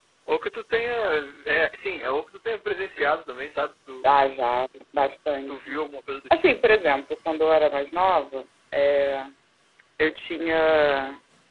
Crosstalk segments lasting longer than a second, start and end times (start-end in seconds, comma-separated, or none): none